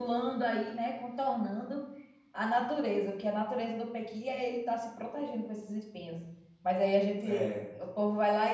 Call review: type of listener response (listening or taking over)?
listening